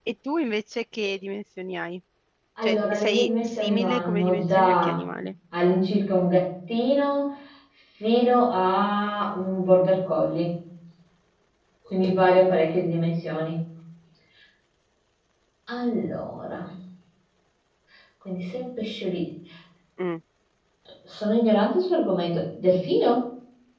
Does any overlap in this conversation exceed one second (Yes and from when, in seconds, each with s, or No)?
Yes, from 2.6 s